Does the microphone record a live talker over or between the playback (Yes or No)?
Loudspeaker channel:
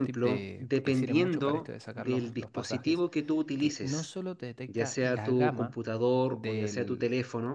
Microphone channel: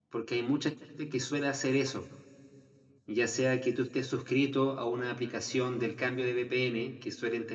Yes